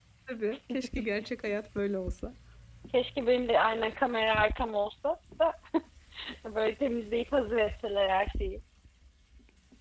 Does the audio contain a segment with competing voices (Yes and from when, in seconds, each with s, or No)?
No